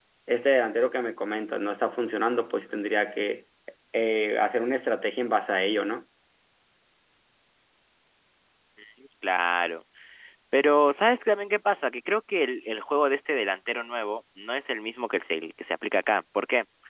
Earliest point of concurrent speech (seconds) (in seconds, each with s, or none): none